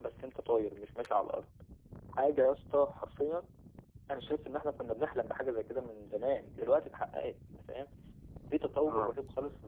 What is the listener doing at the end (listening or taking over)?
listening